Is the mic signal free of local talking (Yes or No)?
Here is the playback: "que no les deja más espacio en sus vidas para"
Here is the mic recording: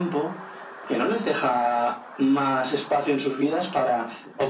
Yes